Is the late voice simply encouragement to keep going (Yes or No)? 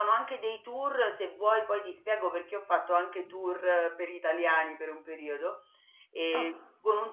Yes